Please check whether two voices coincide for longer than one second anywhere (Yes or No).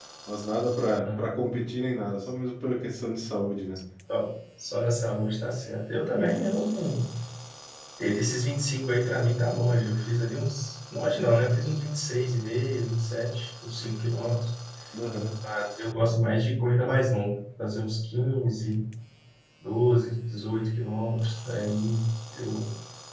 No